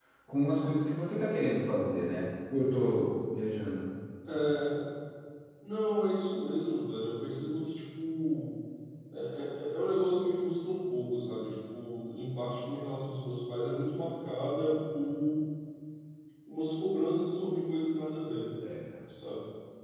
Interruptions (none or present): none